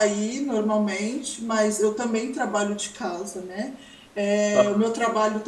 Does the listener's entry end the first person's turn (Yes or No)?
No